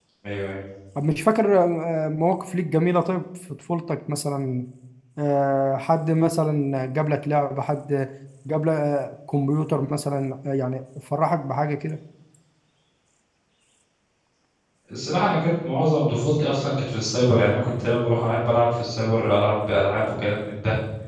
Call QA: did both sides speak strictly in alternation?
Yes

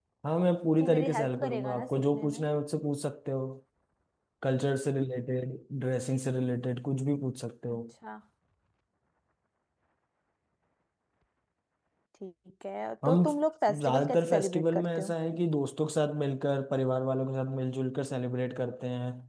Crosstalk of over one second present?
Yes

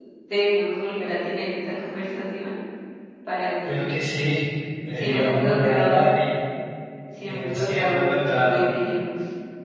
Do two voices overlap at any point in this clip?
Yes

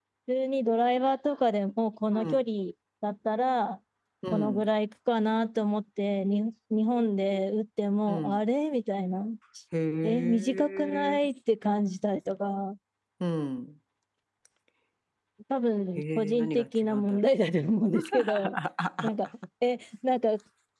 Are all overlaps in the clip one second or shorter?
No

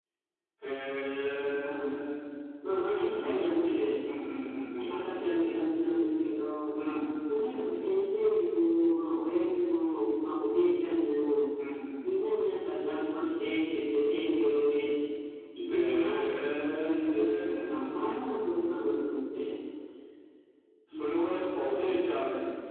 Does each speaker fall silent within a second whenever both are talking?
No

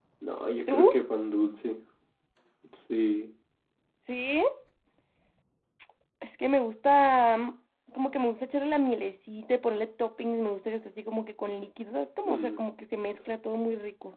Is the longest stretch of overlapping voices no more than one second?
Yes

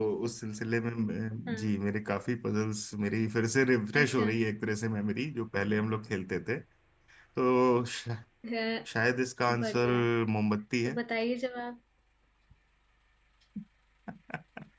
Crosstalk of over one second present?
No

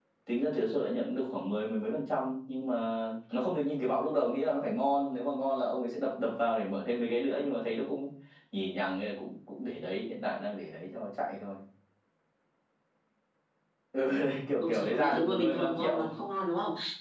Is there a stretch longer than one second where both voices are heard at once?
Yes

